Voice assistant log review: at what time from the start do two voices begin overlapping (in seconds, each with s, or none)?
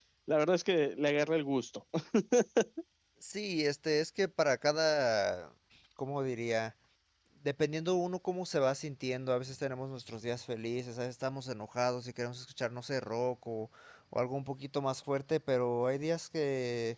none